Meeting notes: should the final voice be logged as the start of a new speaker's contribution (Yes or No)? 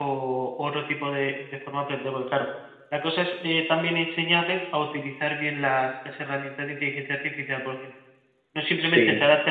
No